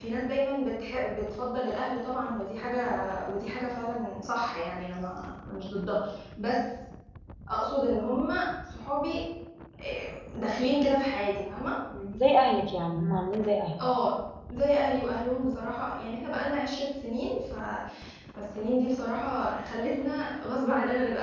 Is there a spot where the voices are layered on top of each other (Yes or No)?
No